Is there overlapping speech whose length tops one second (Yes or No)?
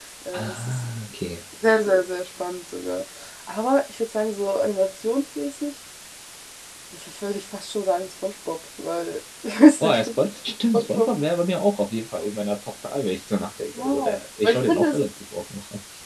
Yes